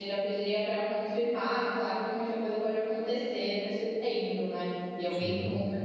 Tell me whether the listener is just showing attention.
Yes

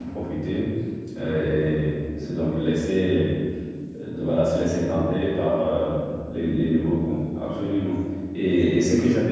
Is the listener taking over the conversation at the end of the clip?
No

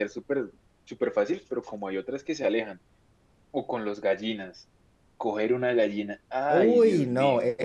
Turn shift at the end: Yes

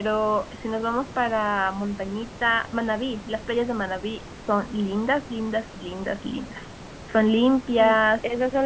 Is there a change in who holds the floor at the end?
Yes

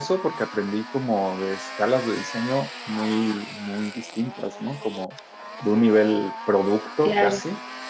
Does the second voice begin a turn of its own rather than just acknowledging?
No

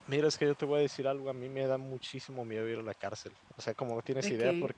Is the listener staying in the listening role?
Yes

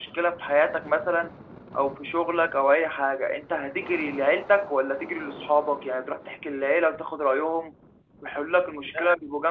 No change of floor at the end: Yes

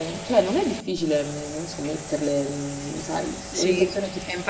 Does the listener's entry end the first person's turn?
Yes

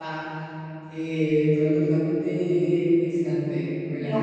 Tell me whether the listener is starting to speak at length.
No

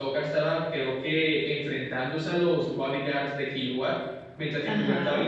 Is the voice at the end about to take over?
No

